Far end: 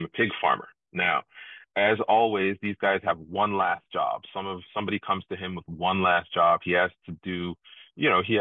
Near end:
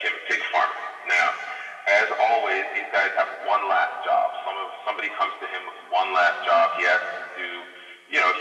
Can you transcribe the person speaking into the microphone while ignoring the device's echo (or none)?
none